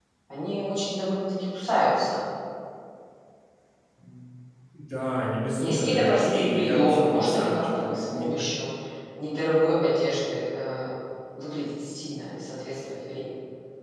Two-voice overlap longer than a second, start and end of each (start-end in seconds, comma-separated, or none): 5.6-8.4